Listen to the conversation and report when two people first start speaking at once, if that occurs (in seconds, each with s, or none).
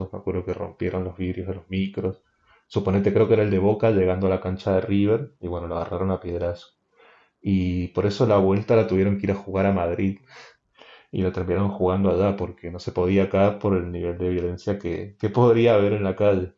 none